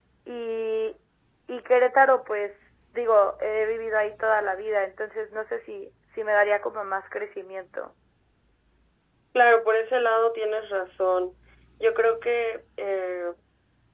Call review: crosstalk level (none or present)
none